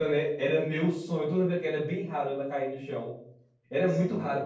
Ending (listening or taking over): listening